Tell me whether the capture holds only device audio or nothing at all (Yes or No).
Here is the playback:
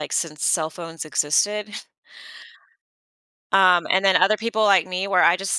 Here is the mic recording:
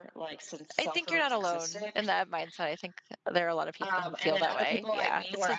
No